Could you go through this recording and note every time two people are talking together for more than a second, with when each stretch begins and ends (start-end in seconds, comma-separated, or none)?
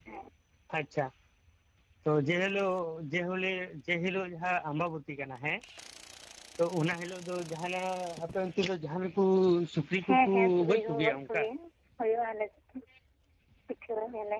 10.1-11.4